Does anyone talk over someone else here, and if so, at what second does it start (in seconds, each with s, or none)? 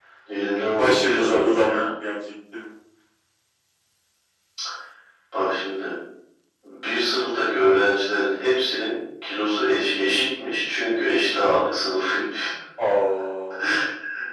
0.6 s